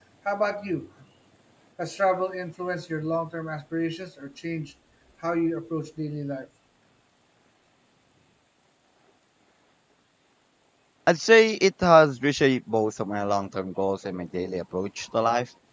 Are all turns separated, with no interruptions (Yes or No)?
Yes